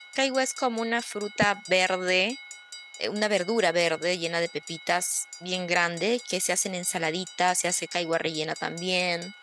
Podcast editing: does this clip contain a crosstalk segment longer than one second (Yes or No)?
No